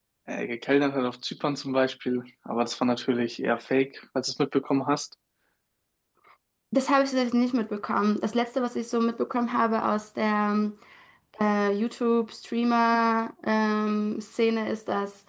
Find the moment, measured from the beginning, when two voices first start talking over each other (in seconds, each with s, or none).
none